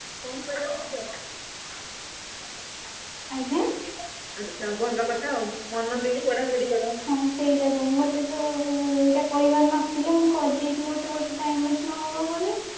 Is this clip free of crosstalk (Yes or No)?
Yes